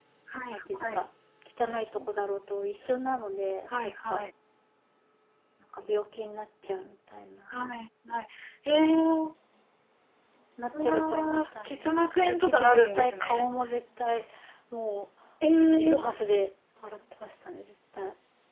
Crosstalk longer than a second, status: present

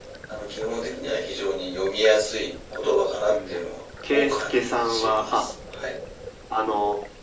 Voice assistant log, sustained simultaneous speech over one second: present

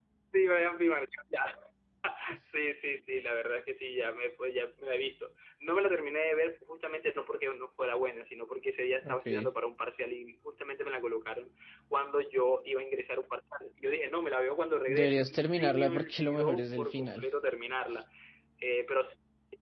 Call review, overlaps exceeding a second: present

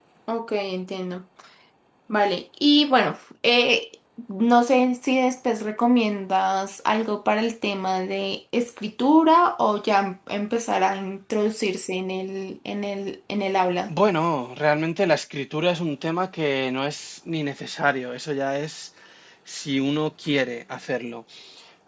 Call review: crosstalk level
none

